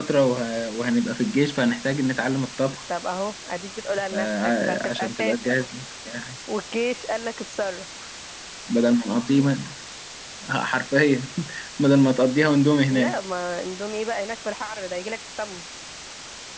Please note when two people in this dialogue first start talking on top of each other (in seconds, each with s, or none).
4.1 s